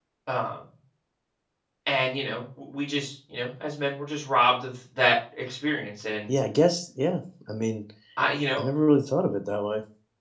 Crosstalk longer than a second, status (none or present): none